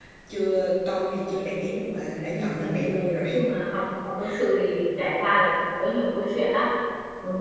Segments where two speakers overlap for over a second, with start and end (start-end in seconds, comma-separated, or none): none